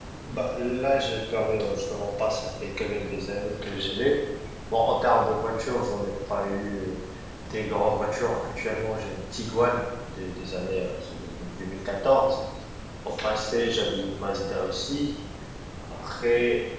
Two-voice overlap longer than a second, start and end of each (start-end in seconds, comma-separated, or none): none